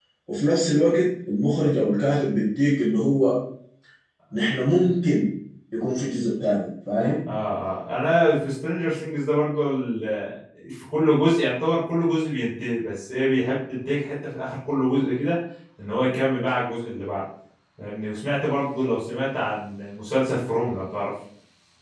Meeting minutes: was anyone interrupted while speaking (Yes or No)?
No